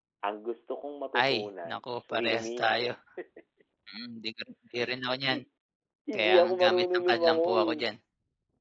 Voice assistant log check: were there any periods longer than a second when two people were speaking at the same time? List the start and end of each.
1.2-2.8, 6.1-7.7

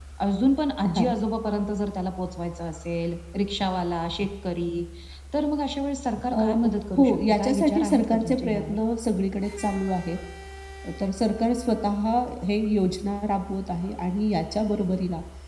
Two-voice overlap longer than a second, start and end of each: 7.0-8.8

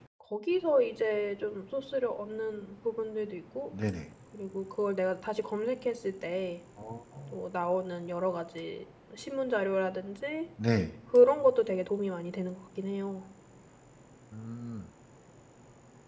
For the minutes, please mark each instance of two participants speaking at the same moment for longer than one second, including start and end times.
none

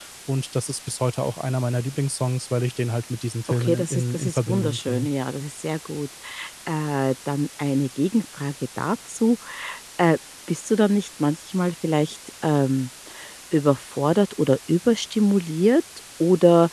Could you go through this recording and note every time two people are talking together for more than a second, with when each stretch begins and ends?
3.5-5.1

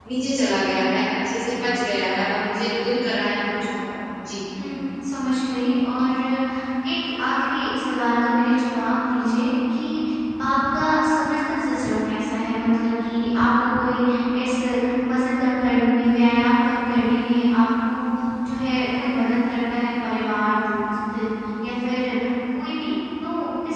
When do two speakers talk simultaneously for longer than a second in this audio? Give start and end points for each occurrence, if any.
none

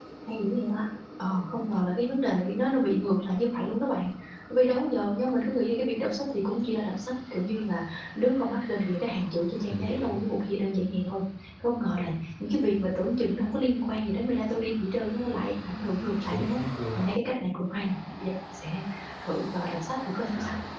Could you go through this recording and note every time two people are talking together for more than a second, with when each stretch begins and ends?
none

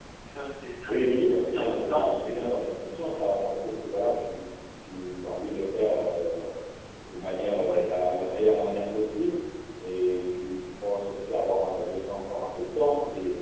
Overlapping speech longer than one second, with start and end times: 0.9-2.3

